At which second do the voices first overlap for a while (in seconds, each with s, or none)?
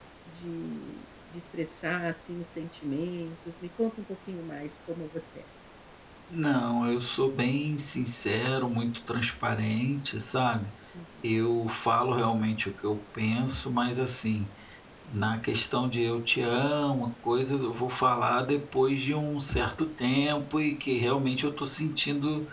none